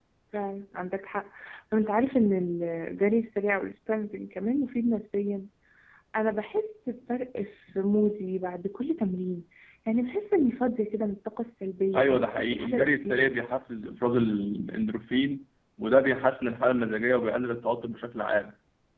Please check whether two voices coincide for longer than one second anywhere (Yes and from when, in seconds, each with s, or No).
Yes, from 11.9 s